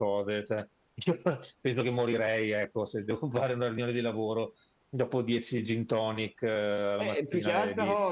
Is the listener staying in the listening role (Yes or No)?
No